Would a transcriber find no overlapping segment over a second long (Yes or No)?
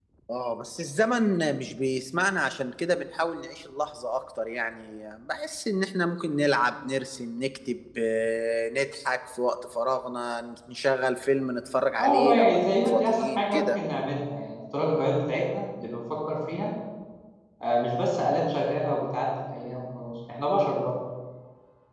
No